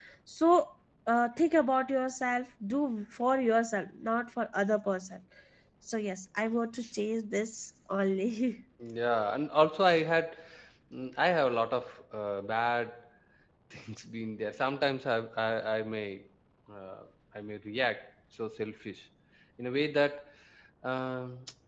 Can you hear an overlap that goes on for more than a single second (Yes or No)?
No